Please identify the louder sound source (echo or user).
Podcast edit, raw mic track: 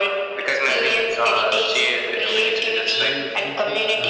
echo